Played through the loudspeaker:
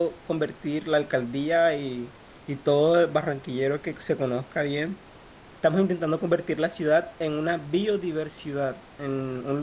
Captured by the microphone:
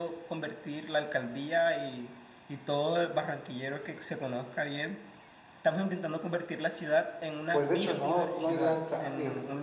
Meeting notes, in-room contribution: present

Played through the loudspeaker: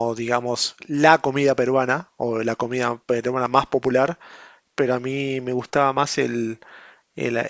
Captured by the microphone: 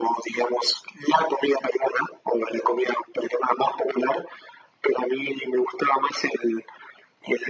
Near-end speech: none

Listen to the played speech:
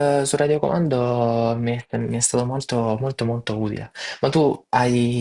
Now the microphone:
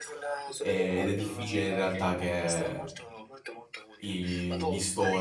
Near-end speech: present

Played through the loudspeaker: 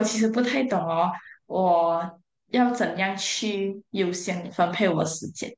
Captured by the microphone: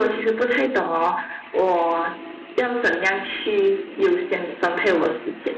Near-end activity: none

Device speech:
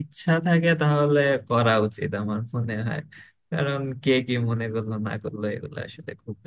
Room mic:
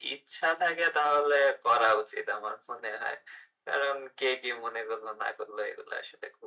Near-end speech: none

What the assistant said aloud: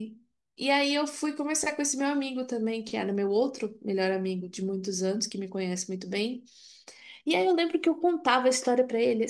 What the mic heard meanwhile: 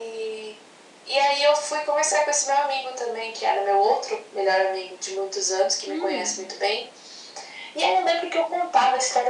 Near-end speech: present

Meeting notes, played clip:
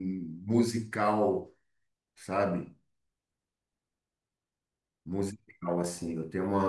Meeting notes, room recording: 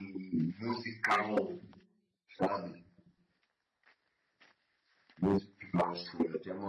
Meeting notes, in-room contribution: present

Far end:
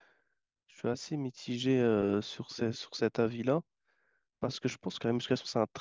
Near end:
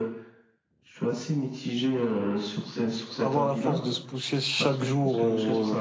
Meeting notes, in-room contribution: present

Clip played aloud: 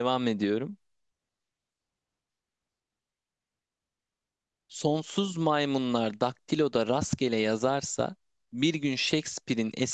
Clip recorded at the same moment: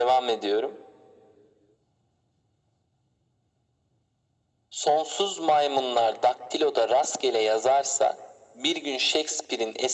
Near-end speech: none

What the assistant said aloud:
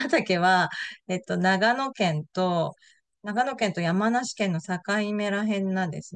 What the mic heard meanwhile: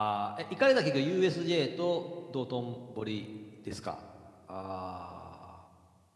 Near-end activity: present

